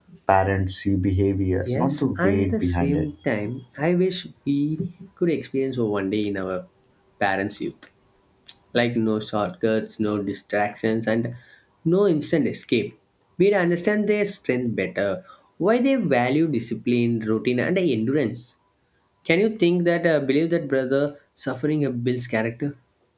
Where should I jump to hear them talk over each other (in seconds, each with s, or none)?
1.6 s